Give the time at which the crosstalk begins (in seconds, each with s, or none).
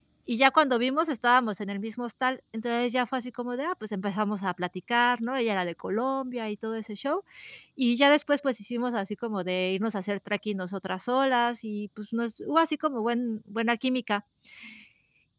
none